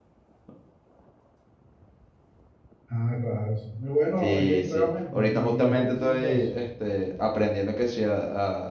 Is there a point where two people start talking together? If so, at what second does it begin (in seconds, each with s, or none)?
4.2 s